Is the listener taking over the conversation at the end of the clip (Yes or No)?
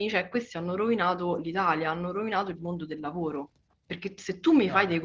No